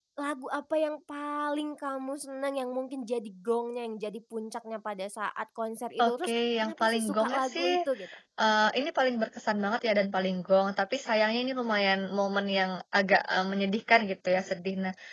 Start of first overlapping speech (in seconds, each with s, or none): 6.0 s